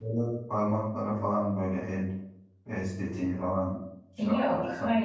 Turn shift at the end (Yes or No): Yes